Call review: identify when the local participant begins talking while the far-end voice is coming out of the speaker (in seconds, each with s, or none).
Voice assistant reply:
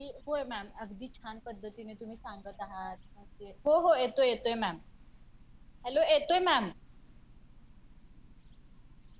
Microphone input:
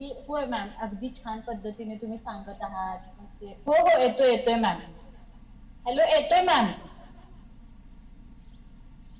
none